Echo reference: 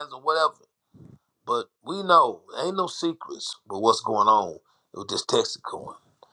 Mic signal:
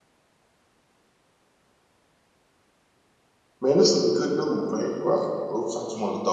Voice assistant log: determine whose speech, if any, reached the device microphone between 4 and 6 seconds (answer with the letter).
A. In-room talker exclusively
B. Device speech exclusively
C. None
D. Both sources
A